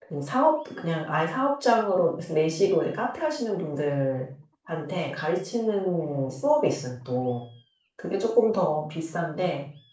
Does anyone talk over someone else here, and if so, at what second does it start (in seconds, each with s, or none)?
none